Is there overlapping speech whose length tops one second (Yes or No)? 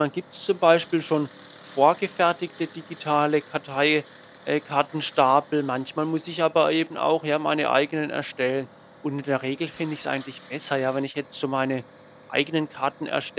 No